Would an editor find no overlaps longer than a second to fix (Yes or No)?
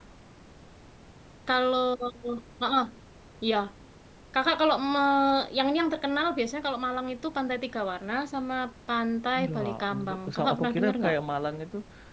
No